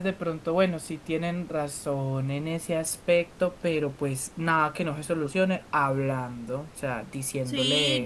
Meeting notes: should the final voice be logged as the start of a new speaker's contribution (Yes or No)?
Yes